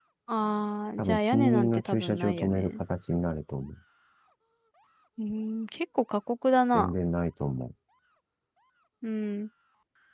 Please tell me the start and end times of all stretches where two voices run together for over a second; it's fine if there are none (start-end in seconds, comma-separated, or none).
1.0-2.8